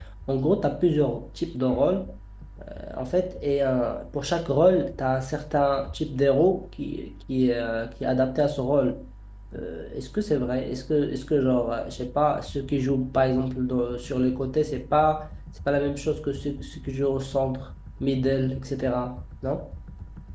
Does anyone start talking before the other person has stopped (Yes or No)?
No